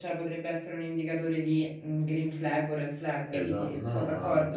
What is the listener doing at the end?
taking over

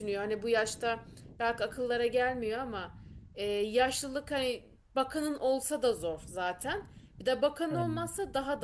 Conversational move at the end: listening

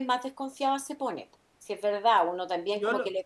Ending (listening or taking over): listening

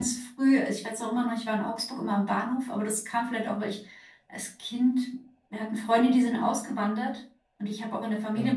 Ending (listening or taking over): listening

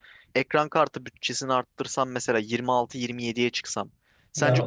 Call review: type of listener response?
listening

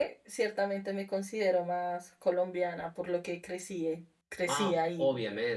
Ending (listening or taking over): taking over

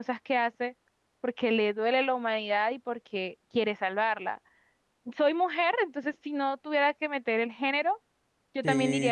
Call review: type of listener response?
taking over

